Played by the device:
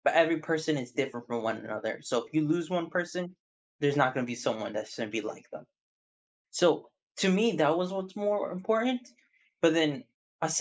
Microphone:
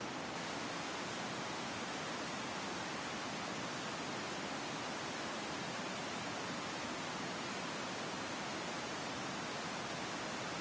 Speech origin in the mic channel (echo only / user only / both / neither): neither